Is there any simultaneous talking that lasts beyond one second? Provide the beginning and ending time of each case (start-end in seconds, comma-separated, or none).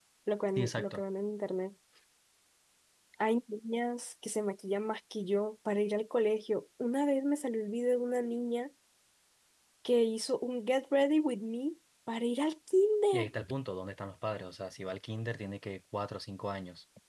none